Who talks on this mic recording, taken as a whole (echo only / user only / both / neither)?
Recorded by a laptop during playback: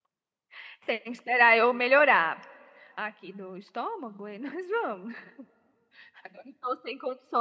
user only